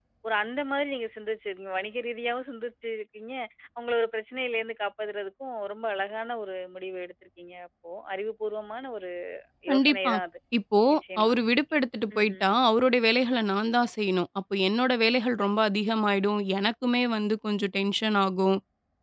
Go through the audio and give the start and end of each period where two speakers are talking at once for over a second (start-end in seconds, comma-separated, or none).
none